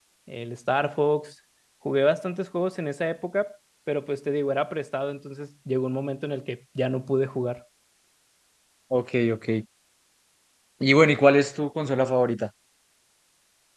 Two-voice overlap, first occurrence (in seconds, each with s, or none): none